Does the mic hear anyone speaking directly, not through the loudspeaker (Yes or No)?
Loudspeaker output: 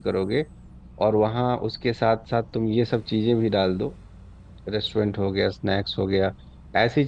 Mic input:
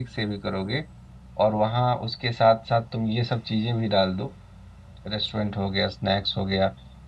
No